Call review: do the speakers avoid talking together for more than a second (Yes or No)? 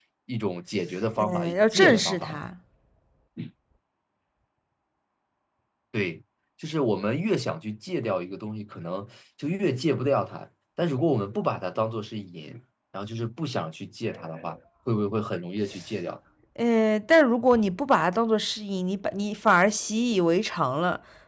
No